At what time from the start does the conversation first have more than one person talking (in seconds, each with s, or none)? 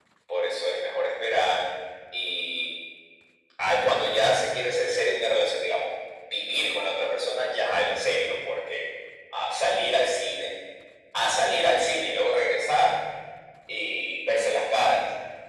none